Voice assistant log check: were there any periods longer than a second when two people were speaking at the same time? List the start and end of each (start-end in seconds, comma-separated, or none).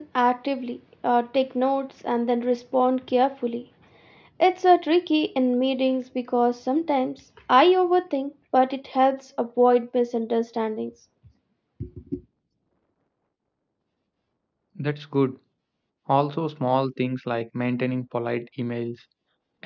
none